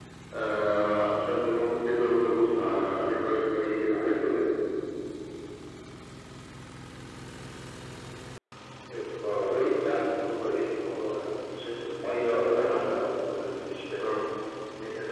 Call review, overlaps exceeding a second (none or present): none